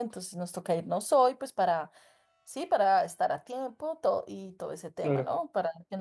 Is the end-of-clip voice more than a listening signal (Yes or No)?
No